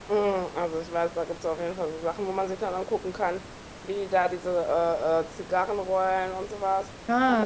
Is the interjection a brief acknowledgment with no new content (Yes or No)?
Yes